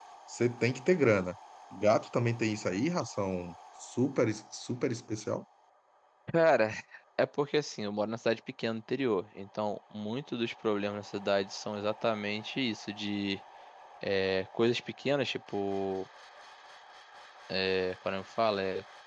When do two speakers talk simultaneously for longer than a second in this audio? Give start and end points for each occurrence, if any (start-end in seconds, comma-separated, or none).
none